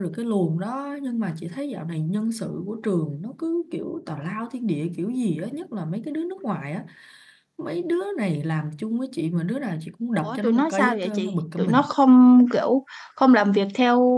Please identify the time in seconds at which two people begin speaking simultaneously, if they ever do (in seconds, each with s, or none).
10.2 s